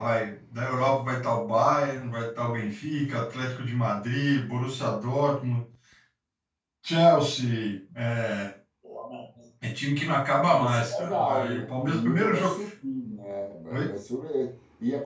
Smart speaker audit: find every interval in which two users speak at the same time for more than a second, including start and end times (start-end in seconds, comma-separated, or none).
10.4-12.6